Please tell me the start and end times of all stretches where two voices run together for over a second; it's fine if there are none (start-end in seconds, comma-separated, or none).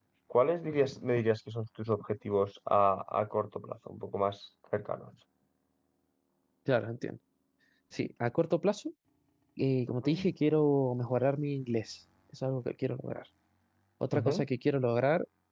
none